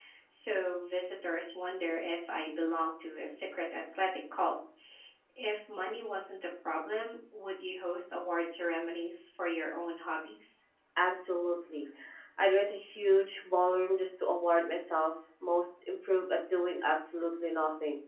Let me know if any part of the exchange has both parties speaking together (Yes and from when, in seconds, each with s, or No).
No